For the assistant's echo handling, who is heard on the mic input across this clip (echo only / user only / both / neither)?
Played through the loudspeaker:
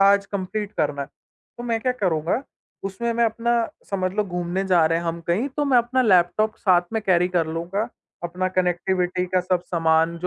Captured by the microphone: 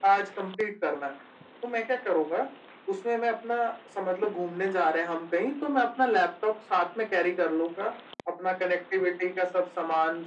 echo only